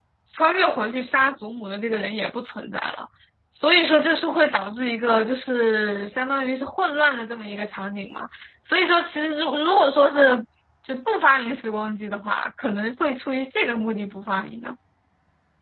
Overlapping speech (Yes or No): No